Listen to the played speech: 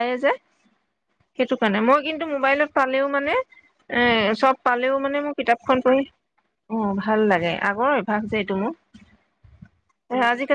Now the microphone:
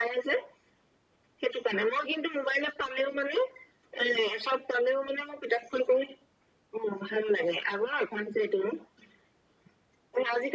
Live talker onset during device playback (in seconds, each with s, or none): none